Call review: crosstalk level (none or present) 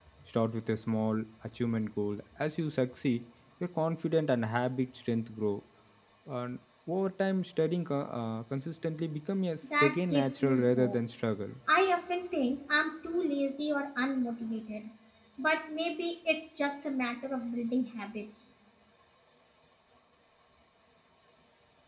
present